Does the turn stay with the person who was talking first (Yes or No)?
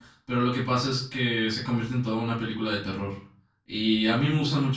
Yes